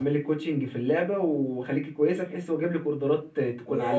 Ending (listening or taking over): taking over